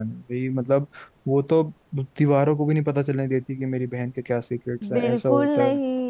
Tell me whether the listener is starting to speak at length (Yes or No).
Yes